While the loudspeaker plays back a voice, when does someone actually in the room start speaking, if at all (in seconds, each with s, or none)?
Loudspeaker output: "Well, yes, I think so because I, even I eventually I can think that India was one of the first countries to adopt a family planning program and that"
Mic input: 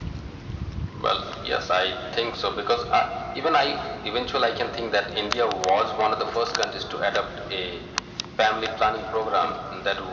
none